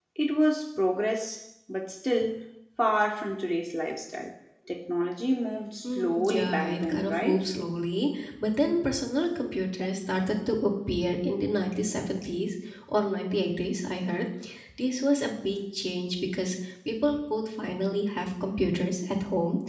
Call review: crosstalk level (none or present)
present